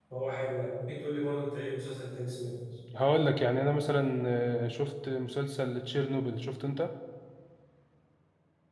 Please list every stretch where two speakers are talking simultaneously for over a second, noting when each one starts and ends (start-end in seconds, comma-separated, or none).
none